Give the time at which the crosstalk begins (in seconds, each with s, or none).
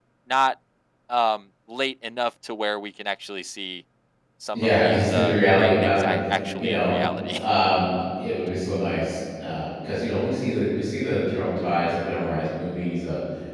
4.5 s